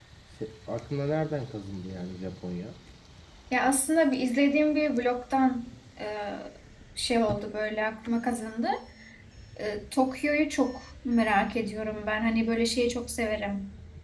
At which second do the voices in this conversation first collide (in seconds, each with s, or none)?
none